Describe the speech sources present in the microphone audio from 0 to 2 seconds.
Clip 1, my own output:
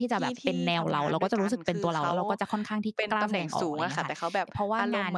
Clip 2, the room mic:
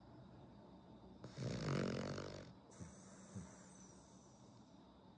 neither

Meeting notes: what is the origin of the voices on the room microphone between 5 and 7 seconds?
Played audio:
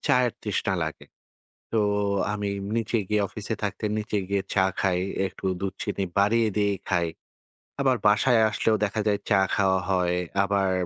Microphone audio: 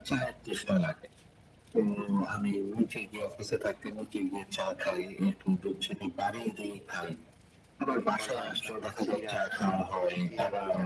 echo only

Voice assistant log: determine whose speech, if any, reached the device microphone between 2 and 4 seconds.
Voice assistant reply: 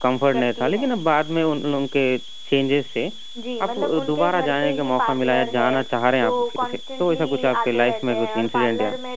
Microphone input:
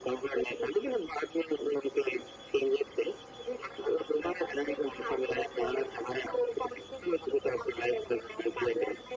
echo only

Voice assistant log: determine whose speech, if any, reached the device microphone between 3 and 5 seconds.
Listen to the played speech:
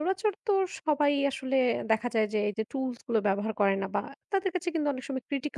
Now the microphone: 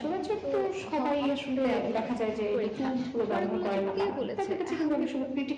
both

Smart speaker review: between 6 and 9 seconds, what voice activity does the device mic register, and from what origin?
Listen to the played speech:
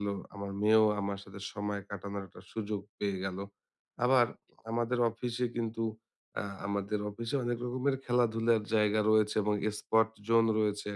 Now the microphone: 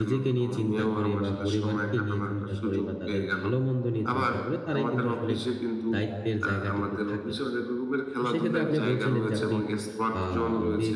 both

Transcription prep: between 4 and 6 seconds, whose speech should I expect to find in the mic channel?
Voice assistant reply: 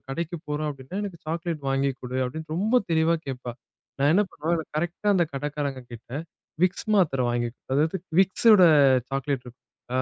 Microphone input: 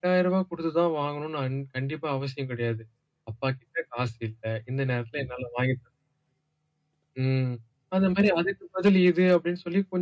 user only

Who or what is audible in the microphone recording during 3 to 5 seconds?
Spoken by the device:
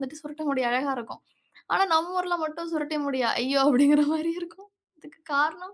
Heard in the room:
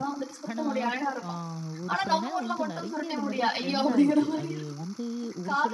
both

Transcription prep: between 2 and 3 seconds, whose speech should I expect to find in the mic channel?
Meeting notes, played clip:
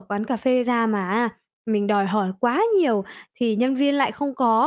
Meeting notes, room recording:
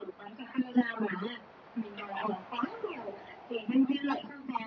echo only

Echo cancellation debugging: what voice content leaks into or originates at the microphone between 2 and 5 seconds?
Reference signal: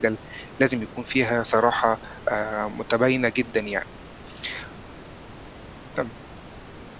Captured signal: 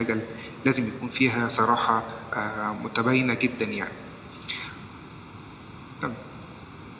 echo only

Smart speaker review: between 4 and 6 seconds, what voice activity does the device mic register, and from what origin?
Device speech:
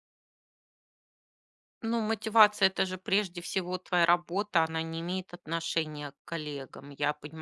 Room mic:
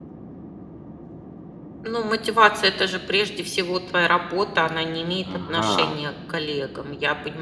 both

